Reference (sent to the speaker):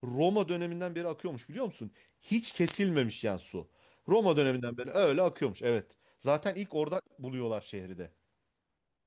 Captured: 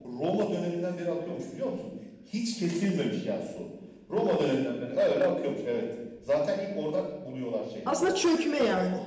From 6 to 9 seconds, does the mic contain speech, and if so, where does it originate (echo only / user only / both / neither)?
both